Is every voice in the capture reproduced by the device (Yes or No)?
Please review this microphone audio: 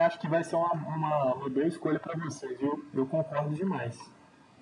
Yes